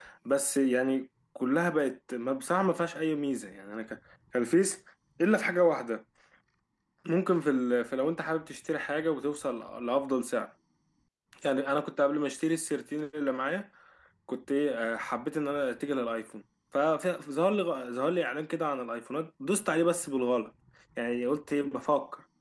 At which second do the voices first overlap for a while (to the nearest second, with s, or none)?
none